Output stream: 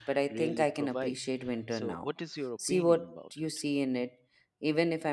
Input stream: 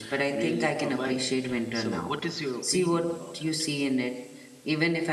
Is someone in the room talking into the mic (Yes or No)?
No